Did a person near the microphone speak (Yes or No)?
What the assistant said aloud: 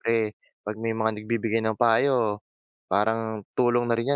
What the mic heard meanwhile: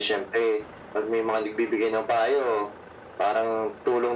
No